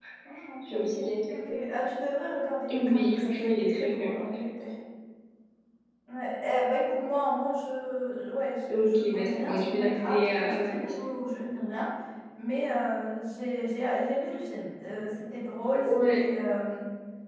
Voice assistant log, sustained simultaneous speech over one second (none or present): present